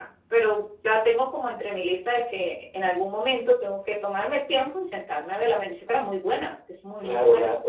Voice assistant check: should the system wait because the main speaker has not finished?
No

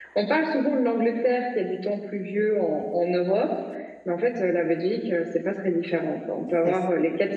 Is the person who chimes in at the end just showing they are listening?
Yes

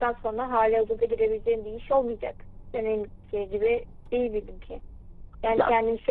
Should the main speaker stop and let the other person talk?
No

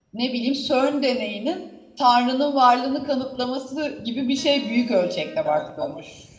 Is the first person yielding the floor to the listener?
Yes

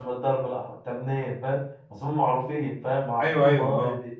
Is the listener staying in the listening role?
No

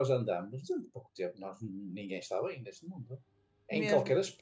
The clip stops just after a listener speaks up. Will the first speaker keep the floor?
Yes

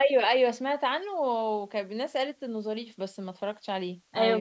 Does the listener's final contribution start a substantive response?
Yes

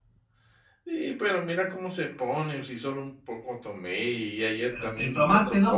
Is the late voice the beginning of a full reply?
Yes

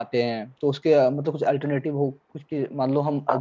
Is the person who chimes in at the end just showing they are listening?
Yes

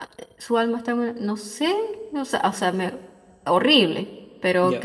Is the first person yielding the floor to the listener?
No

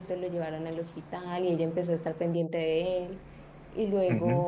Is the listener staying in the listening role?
Yes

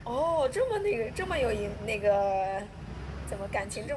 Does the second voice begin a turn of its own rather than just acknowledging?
No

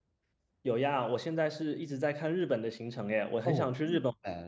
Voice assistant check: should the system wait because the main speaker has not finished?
No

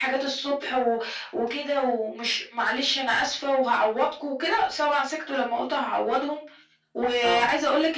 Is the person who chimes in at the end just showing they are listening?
Yes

